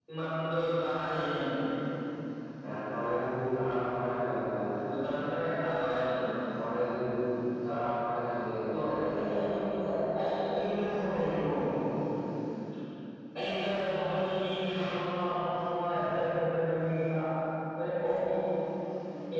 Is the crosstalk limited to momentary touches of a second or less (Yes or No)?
Yes